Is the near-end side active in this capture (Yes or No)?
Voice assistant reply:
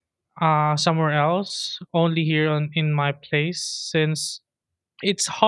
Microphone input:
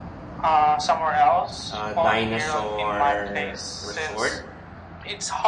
Yes